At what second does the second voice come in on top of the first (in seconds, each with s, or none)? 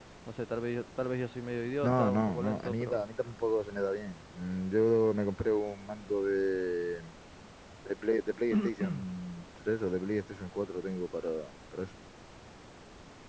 1.8 s